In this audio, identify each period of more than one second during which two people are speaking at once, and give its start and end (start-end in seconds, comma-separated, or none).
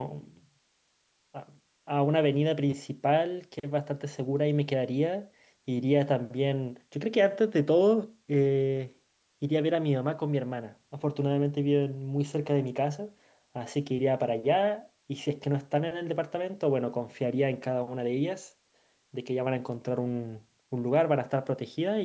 none